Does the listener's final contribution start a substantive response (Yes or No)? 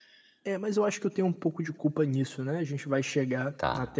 No